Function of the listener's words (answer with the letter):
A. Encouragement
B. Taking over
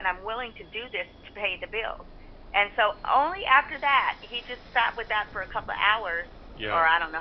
A